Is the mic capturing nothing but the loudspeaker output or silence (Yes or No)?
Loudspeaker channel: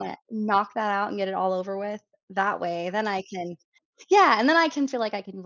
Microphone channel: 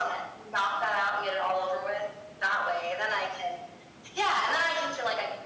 Yes